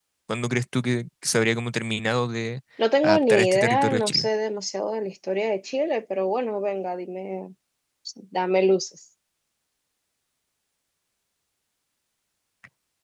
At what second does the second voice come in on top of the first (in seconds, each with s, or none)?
3.0 s